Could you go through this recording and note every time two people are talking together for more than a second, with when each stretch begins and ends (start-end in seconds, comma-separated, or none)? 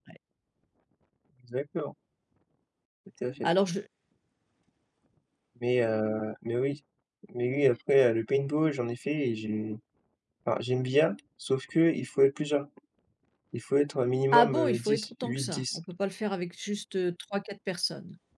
14.3-15.8